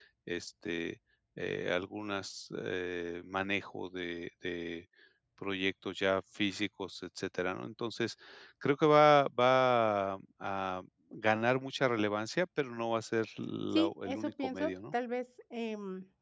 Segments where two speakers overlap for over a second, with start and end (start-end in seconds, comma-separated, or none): 13.7-14.9